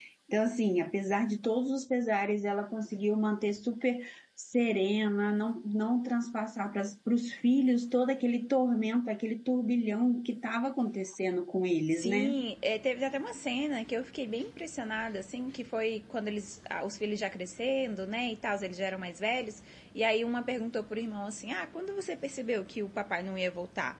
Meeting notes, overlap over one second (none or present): none